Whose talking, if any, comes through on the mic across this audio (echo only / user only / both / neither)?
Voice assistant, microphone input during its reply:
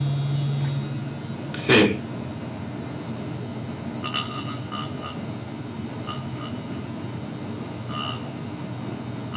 user only